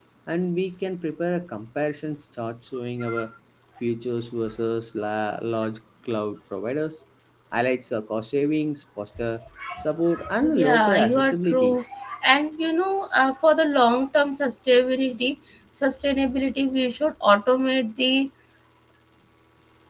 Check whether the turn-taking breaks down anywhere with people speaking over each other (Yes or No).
Yes